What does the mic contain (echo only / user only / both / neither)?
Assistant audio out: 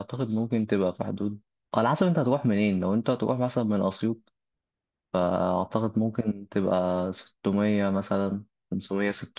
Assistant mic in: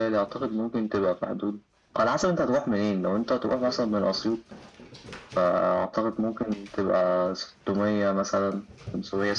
echo only